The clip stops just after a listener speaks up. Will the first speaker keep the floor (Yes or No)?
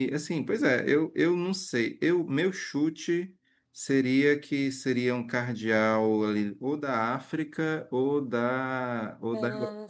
Yes